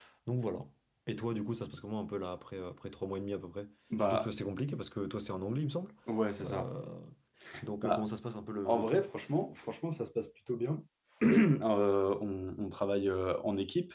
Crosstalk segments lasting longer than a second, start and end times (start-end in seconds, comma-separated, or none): none